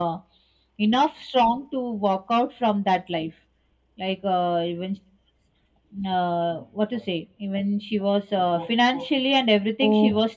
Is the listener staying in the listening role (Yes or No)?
Yes